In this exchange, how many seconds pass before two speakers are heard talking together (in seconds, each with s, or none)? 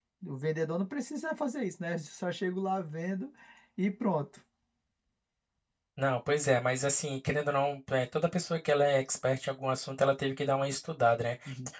none